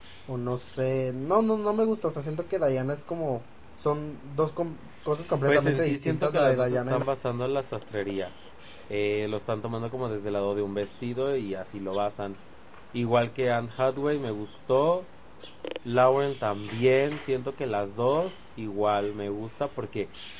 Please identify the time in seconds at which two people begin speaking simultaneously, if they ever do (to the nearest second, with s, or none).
5 s